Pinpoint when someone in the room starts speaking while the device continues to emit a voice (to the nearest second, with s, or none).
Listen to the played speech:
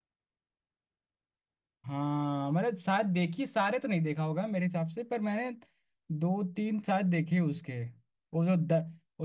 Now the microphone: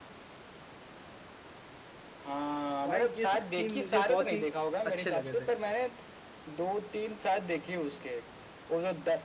3 s